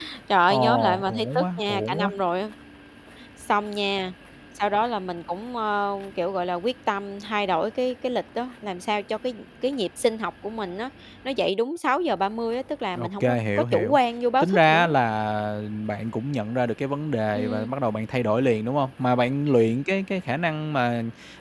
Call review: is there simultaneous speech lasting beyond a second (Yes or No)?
Yes